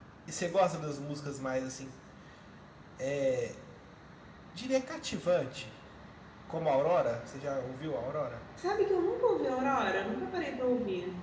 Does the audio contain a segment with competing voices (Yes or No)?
No